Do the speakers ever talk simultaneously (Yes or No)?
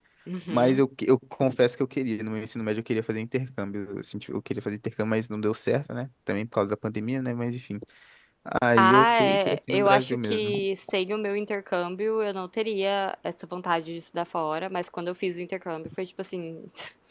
Yes